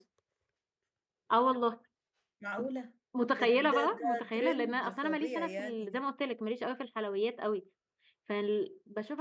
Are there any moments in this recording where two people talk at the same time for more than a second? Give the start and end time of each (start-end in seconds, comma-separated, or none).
3.3-6.0